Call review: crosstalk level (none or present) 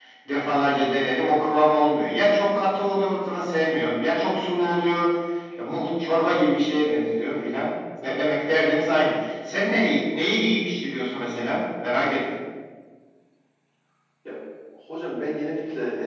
none